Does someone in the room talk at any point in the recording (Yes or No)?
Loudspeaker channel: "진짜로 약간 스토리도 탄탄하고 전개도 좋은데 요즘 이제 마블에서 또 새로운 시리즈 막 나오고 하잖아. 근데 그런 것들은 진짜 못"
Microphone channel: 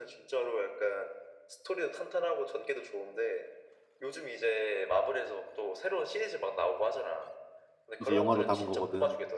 Yes